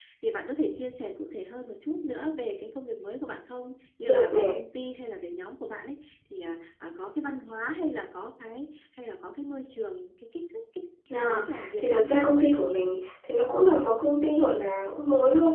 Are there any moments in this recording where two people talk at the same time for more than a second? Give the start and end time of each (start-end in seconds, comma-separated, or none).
11.2-12.5